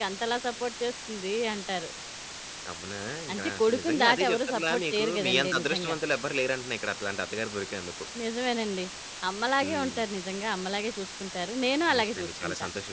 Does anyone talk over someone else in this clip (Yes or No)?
Yes